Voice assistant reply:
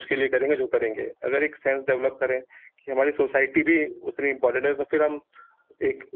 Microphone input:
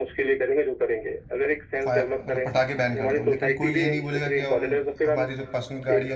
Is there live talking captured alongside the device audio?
Yes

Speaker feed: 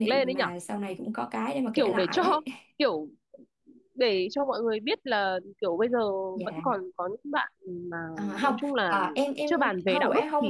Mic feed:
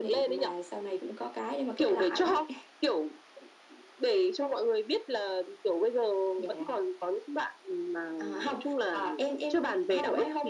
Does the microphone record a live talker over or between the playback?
No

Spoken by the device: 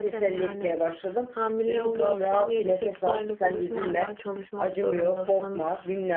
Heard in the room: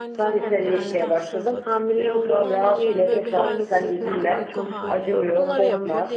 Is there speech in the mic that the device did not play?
Yes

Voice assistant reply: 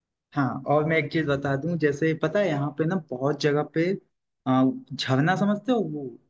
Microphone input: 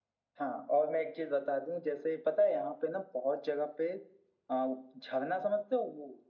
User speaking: No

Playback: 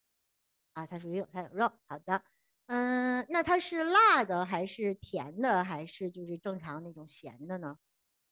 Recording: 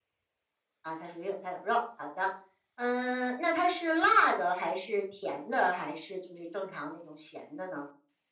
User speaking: No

